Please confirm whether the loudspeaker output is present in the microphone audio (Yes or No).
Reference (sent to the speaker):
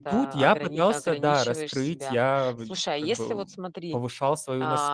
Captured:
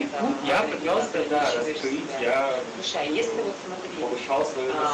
Yes